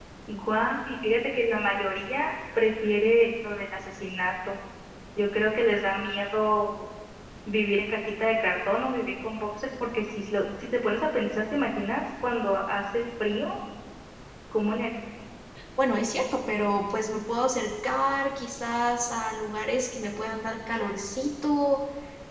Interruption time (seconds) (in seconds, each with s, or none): none